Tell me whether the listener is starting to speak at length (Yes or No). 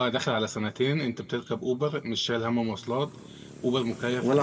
Yes